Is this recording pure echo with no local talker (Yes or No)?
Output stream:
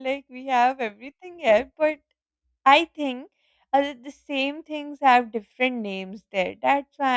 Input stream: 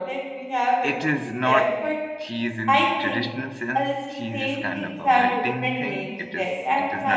No